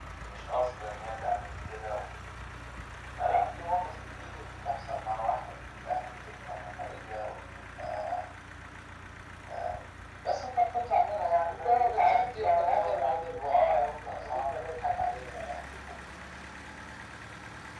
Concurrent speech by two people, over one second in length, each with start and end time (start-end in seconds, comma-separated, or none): 11.5-14.6